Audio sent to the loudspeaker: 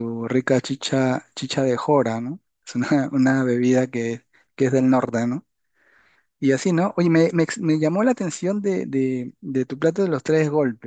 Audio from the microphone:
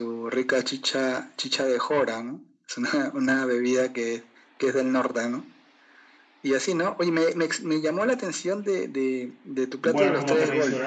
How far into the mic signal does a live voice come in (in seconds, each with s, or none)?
9.8 s